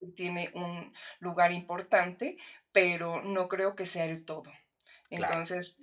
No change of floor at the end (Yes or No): Yes